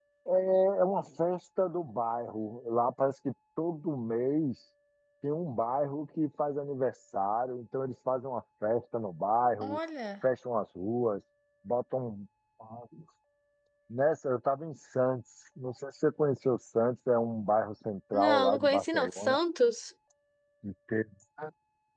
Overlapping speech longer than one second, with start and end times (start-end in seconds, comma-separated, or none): 18.1-19.4